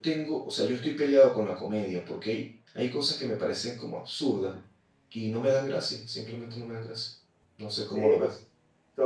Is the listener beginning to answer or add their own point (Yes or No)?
Yes